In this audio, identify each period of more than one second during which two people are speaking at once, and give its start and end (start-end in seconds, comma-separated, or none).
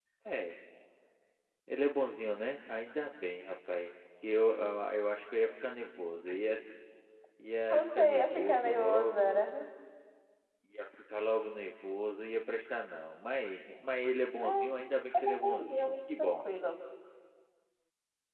7.7-9.4, 15.2-16.4